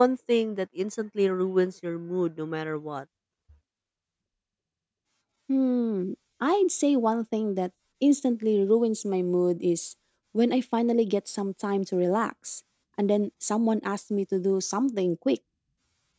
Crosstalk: none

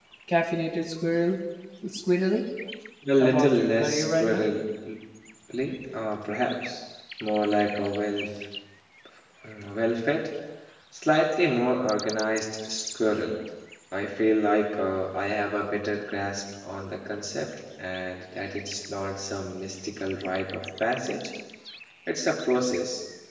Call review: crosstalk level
present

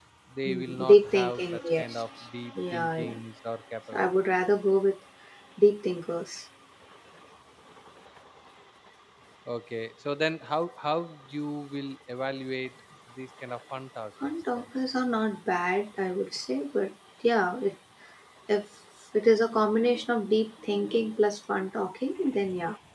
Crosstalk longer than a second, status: present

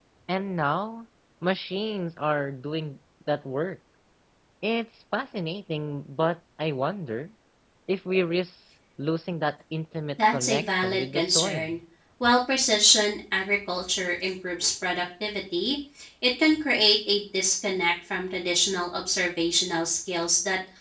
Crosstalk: present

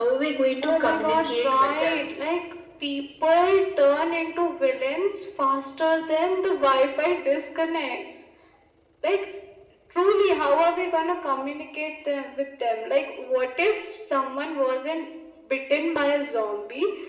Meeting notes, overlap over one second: present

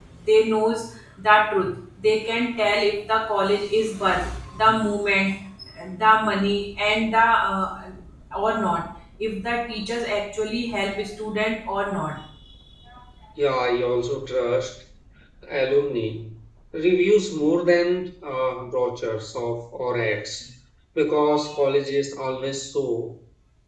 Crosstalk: none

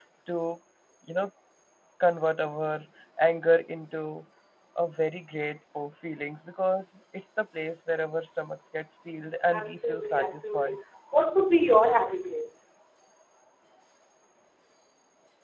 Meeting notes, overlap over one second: present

